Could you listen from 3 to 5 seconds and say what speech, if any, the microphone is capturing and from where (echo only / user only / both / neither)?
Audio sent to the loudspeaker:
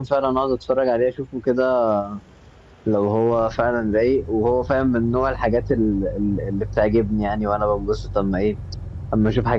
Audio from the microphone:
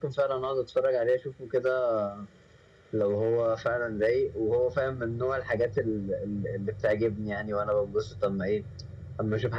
echo only